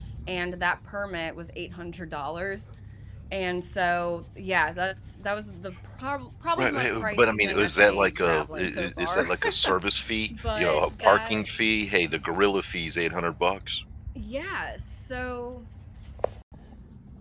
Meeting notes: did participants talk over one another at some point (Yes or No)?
Yes